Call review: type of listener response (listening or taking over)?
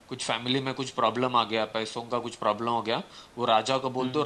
listening